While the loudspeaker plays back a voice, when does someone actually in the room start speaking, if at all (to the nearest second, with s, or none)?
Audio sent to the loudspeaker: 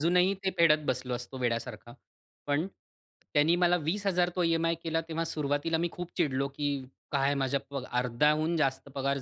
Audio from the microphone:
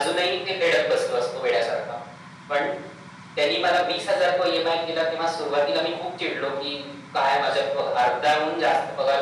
none